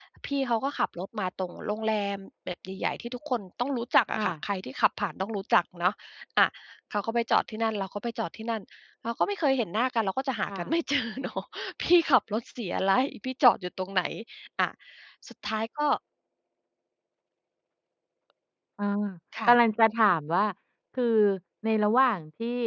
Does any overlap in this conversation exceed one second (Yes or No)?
No